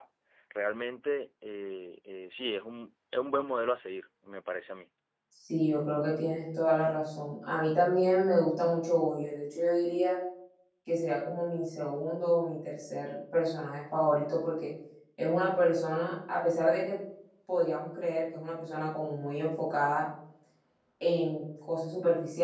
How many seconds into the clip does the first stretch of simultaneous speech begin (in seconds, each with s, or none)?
none